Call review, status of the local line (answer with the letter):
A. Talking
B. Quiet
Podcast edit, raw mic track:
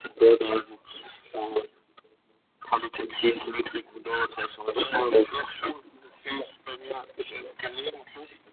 B